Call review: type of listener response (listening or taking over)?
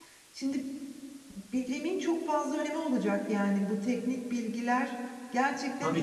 taking over